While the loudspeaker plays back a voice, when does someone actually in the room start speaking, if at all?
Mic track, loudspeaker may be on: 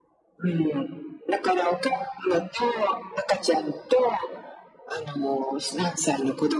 none

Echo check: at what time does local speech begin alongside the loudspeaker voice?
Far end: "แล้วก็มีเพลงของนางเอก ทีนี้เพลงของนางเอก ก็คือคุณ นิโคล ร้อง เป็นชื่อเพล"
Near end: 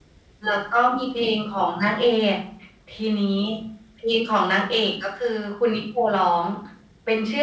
none

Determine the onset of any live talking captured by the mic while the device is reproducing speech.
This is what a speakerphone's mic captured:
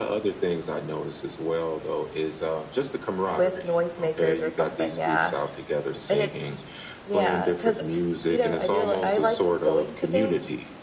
3.4 s

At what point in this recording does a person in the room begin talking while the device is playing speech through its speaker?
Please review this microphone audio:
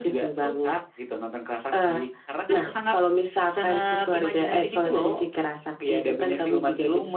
none

